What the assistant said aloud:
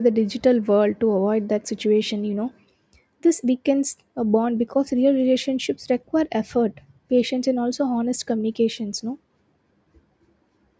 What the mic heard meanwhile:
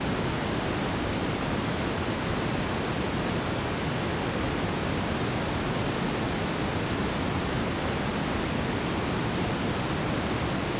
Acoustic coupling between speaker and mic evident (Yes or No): No